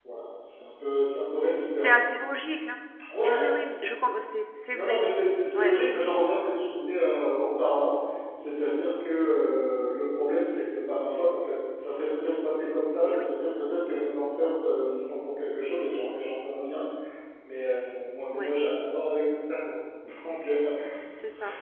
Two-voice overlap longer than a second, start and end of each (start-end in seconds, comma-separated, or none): none